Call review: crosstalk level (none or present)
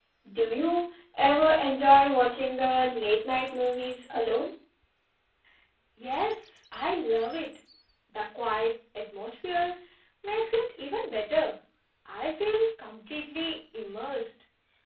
none